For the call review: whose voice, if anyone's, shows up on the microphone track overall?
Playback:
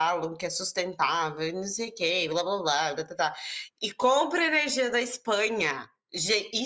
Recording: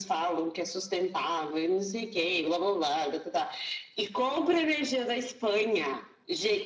echo only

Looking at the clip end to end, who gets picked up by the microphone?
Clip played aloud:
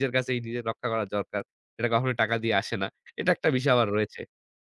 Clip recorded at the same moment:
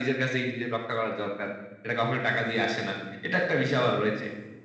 echo only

